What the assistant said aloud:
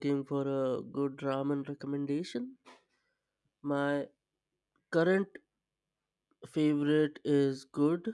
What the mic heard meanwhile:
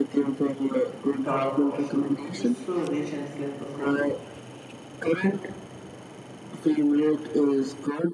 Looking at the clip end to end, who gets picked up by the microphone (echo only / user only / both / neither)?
both